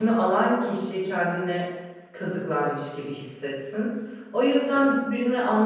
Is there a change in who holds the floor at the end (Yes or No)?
No